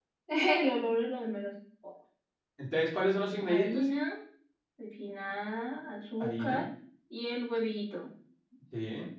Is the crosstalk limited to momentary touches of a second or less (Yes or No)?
Yes